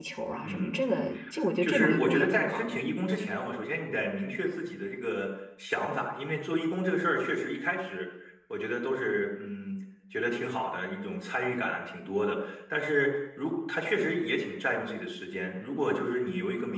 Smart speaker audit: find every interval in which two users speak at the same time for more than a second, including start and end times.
1.6-2.9

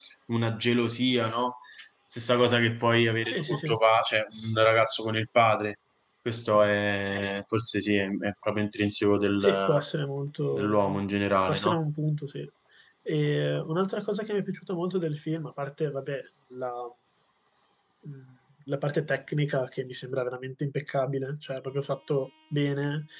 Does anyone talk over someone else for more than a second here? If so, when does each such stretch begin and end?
none

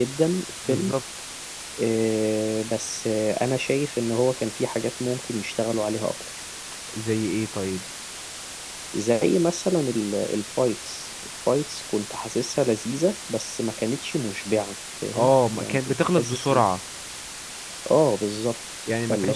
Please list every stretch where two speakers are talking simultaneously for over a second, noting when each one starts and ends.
15.1-16.6

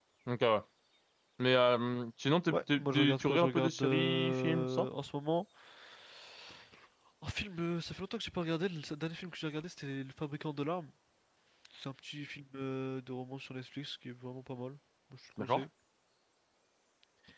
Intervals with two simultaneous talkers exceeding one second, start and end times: 2.5-4.9

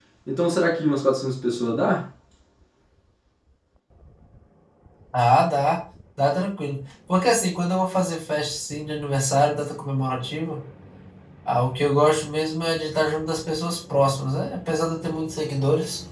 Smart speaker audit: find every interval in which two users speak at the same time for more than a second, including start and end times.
none

